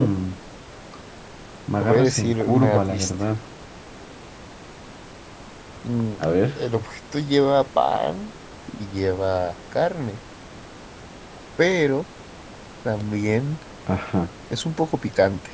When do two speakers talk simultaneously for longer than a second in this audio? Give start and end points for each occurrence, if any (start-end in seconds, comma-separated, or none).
1.8-3.1